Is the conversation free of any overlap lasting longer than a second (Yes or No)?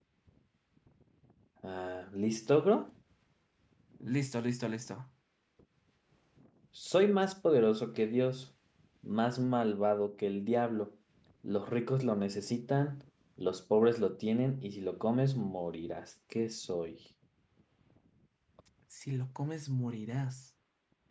Yes